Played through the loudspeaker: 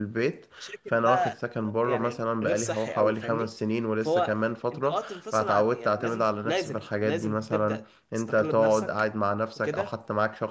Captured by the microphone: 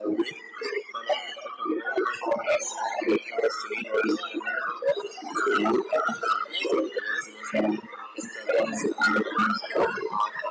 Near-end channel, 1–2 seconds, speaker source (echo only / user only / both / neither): echo only